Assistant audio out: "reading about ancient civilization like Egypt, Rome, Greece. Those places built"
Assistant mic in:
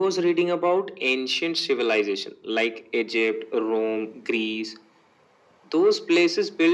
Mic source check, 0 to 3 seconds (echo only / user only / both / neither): echo only